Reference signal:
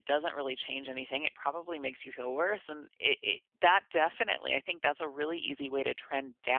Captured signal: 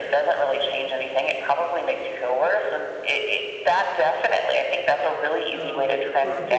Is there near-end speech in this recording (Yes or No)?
Yes